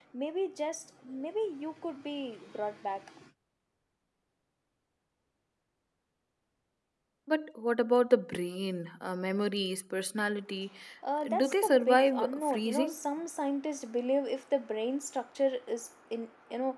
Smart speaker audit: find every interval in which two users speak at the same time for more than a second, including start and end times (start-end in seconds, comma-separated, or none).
11.3-13.0